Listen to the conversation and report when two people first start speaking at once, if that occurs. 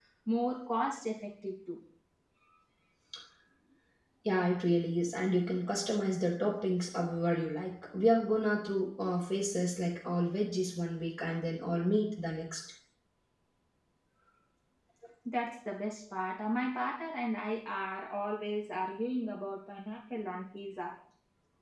none

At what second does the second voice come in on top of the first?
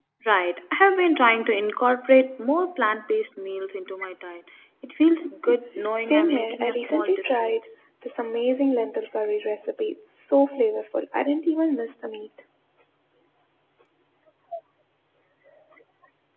6.0 s

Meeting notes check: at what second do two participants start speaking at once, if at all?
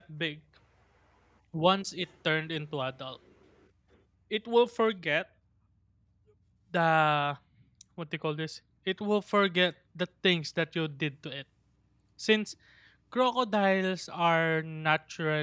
none

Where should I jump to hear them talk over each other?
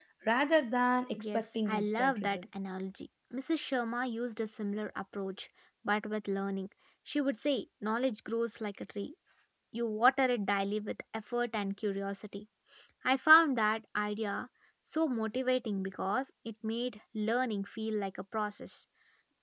1.2 s

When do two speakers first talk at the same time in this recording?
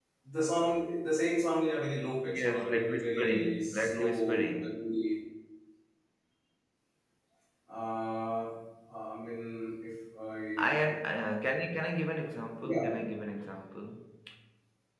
2.3 s

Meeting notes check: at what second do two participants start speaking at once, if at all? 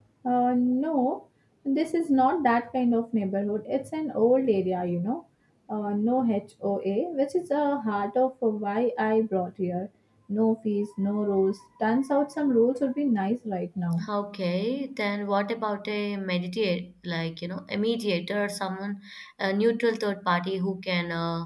none

